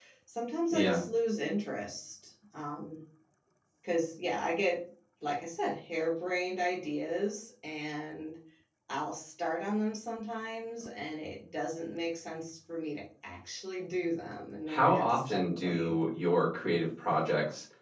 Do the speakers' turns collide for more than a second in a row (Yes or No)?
Yes